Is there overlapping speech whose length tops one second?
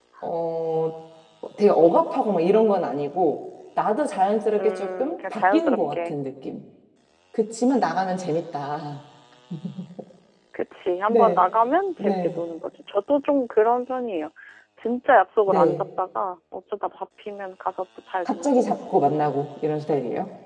Yes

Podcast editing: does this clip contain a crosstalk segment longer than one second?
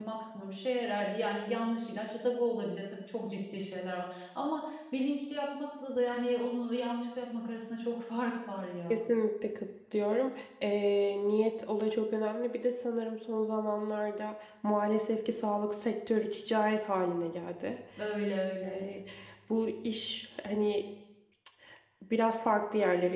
No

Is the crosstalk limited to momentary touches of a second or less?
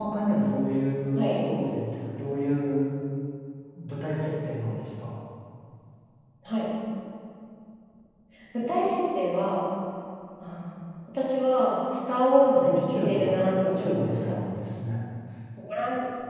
No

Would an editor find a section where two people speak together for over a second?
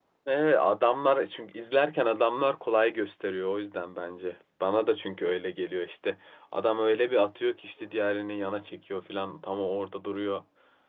No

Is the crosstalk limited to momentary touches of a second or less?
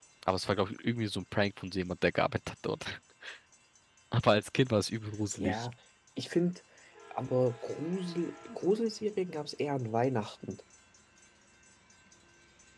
Yes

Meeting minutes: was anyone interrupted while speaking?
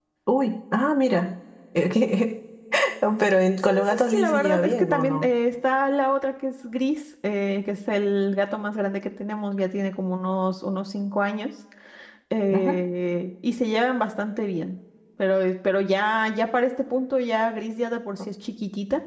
Yes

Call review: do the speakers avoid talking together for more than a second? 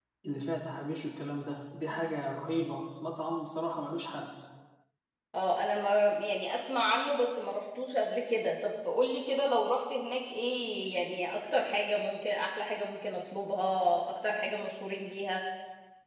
Yes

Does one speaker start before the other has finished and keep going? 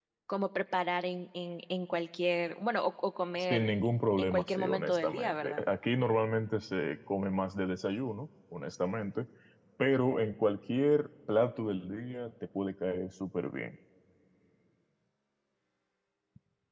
Yes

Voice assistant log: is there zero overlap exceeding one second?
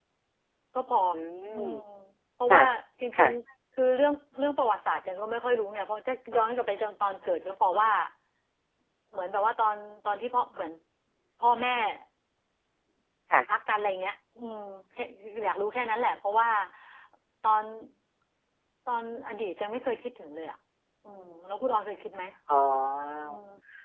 Yes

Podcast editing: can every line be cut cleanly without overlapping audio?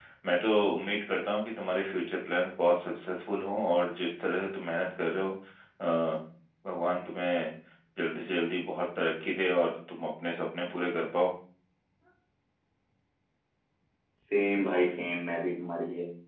Yes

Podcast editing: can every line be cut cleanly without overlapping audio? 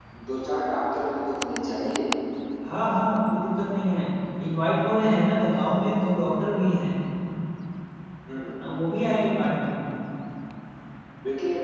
Yes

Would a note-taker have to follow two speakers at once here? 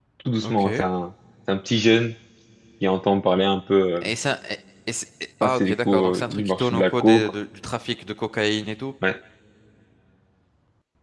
Yes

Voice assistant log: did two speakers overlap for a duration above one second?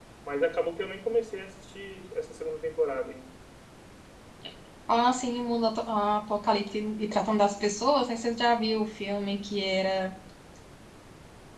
No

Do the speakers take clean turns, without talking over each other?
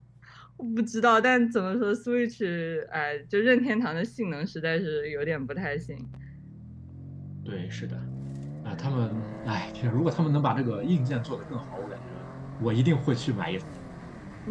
Yes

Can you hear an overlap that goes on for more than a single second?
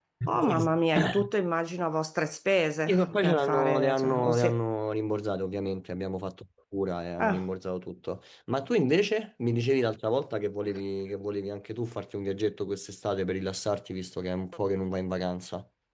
Yes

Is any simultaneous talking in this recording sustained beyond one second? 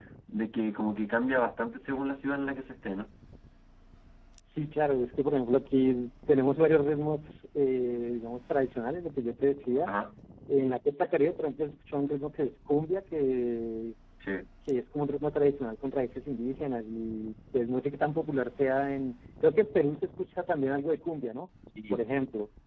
No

